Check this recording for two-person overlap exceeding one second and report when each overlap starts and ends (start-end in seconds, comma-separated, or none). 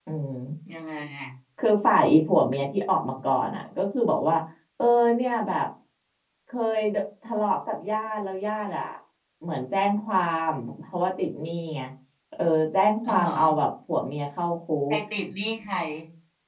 none